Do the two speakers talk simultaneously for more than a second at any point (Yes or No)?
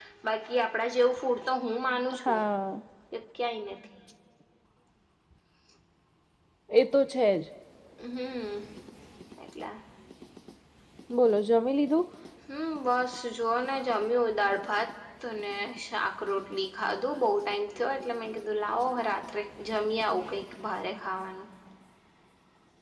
No